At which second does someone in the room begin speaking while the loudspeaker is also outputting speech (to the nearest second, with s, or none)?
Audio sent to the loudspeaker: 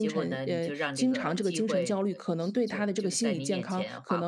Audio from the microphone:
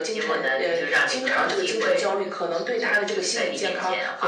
none